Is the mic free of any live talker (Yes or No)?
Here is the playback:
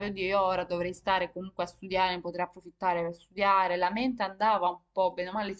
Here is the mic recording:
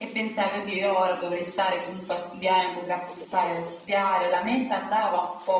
Yes